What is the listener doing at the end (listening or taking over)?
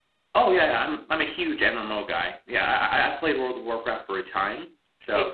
taking over